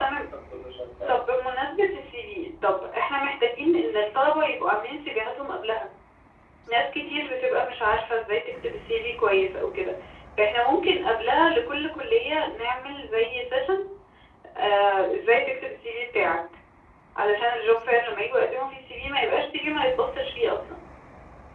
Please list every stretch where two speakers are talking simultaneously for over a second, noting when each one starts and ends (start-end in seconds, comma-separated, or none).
none